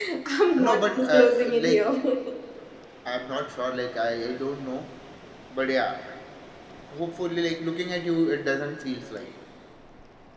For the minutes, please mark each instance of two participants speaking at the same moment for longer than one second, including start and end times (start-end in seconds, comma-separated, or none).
0.6-1.8